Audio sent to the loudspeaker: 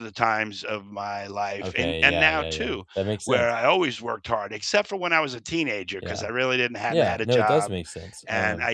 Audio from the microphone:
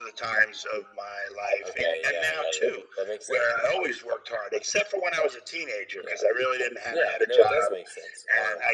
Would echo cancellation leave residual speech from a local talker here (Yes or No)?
No